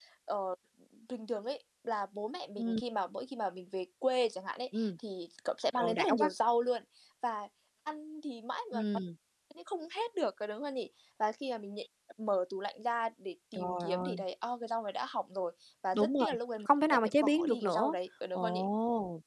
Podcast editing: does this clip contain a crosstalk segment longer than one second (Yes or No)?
Yes